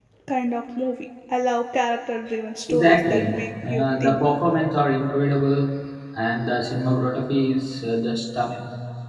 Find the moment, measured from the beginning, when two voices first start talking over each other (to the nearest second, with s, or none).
3 s